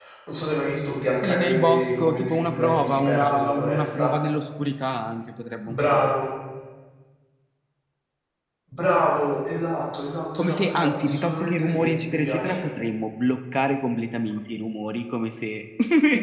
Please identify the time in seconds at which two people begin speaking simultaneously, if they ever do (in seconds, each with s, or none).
1.2 s